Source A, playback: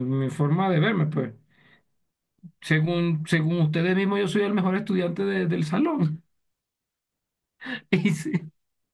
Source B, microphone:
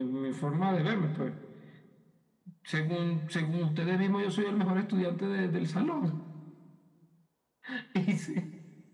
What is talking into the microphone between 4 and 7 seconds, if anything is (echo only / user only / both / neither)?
echo only